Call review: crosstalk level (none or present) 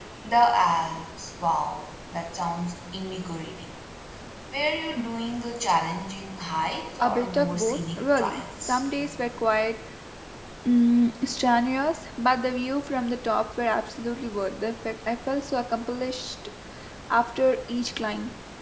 present